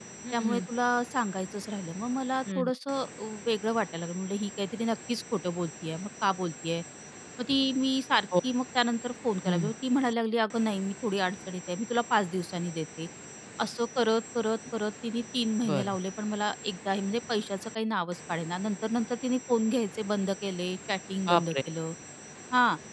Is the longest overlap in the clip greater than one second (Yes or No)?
No